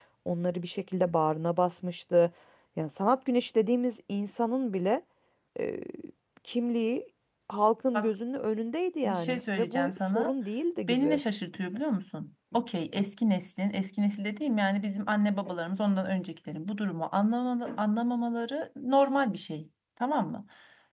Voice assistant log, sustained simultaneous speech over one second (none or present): present